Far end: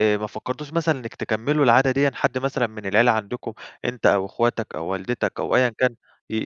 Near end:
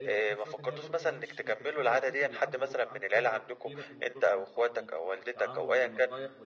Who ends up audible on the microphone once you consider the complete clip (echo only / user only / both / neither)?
both